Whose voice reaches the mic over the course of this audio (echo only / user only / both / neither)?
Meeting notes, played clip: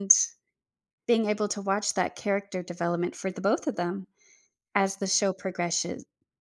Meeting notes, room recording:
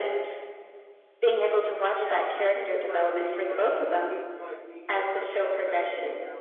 both